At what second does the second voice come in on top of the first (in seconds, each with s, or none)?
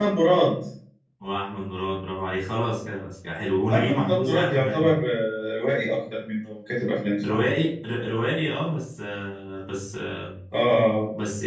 3.7 s